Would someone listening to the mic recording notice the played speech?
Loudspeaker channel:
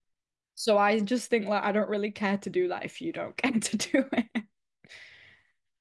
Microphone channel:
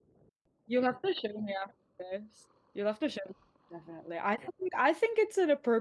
No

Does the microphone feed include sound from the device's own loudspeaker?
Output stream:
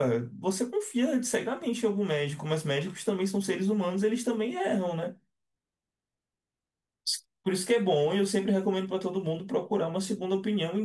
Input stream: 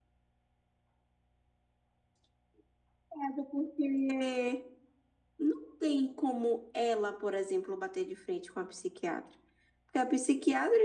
No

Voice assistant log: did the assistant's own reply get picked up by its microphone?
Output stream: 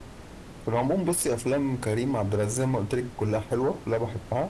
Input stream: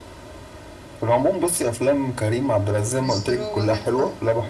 Yes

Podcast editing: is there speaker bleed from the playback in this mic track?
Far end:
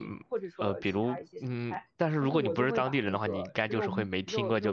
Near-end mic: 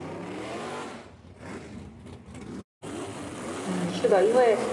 No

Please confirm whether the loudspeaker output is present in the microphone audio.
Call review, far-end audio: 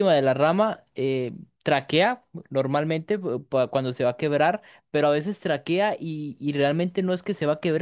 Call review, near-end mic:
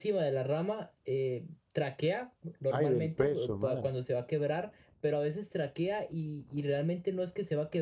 Yes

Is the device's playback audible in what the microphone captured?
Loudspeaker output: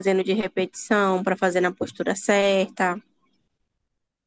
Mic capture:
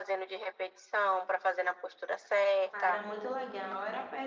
Yes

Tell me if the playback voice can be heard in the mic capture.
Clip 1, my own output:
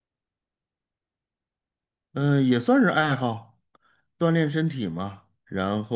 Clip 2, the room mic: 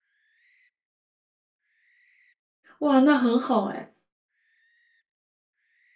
No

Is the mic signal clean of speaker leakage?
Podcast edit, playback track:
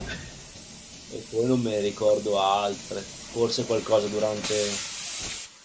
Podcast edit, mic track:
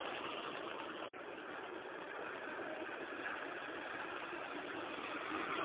Yes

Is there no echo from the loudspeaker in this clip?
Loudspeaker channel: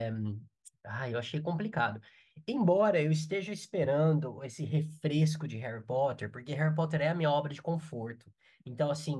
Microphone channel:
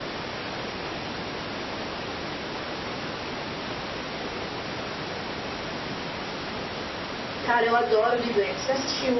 Yes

